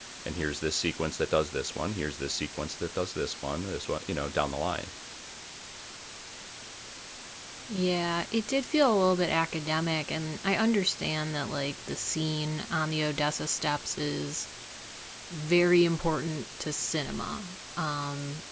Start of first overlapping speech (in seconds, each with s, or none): none